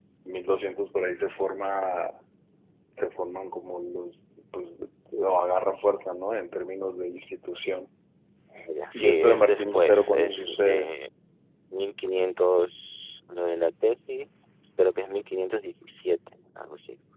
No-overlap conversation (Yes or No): No